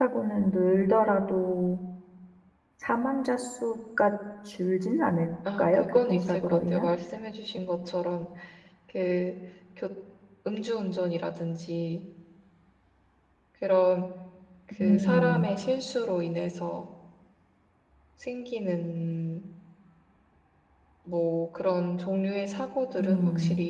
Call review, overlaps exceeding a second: present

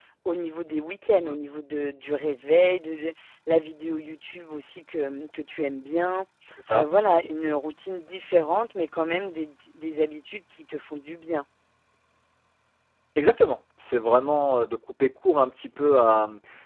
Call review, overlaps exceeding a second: none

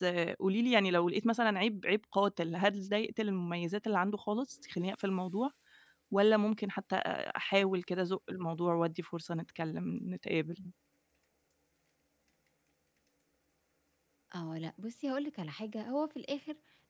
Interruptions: none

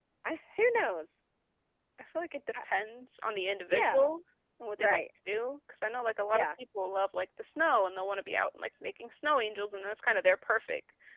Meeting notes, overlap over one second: none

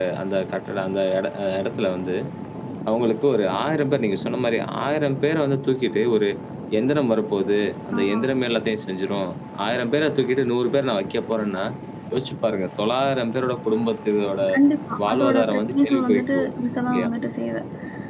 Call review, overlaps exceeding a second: present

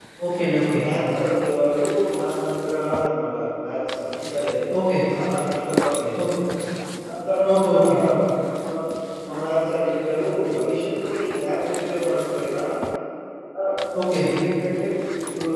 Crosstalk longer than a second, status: none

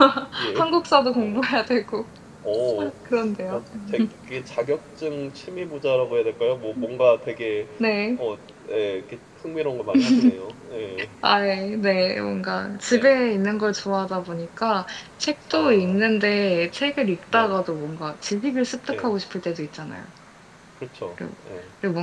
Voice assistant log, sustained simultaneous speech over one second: none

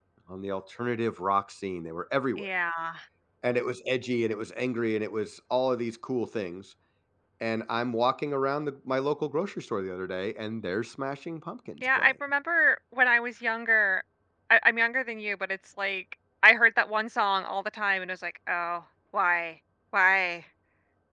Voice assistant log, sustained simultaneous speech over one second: none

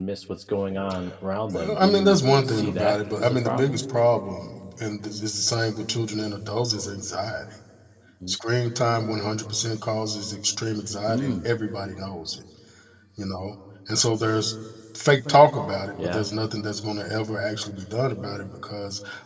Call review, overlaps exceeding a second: present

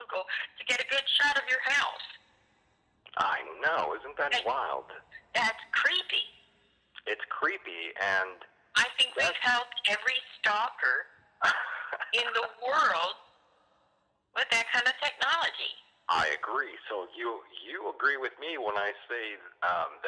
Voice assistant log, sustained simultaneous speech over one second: none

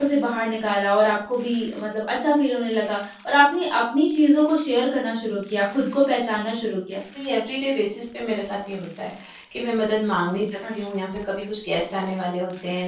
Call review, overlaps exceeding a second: none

